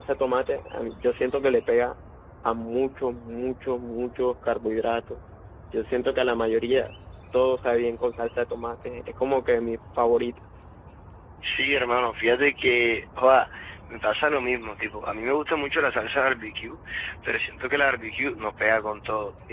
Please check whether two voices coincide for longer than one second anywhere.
No

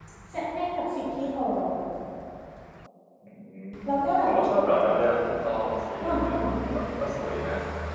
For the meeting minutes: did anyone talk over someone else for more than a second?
No

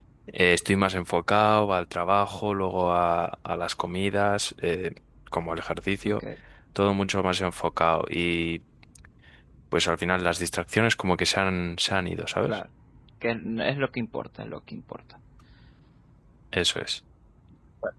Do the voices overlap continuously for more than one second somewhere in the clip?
No

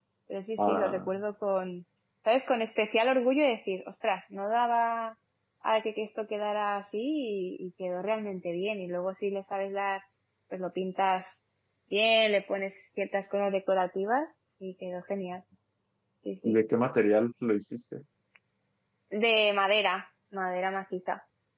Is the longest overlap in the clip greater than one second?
No

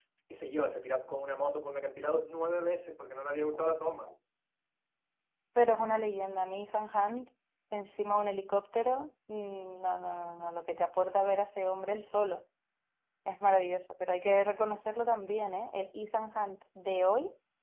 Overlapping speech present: No

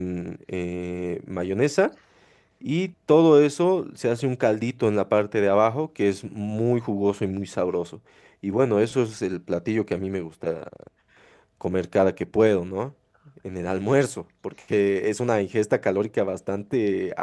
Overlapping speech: No

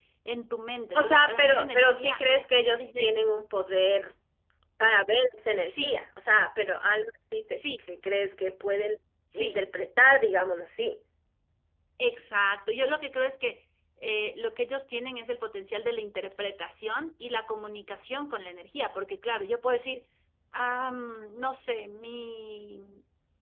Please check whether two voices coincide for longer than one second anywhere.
Yes, from 0.9 s

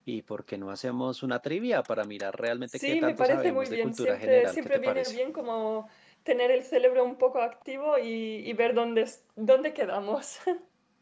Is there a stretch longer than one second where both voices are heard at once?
Yes, from 2.9 s

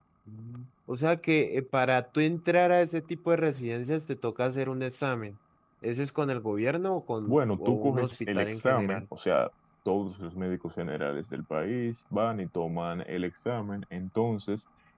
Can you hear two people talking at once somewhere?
Yes, from 7.3 s

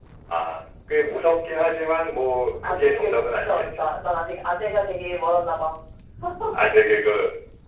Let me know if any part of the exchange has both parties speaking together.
Yes, from 2.6 s

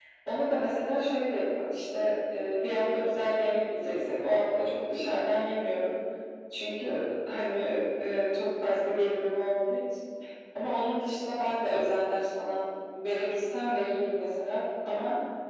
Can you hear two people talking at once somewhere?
No

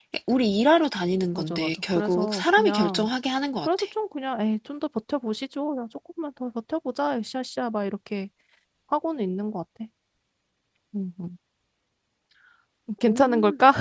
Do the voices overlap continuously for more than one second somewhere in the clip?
Yes, from 1.3 s

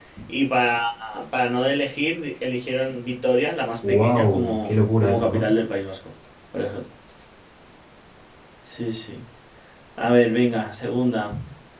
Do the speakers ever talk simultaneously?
Yes, from 3.8 s

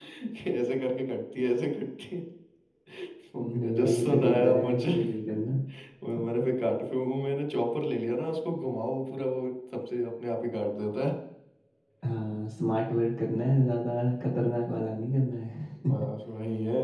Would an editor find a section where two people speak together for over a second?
Yes, from 3.4 s

